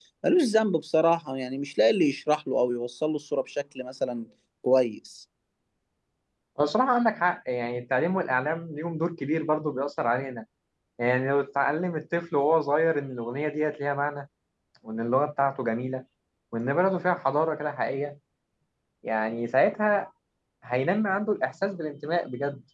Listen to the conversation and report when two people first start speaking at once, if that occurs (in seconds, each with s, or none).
none